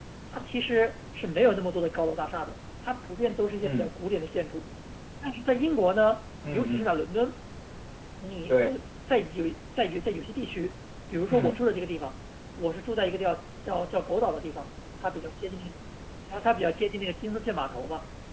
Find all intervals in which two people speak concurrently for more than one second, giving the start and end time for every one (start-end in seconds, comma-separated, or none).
none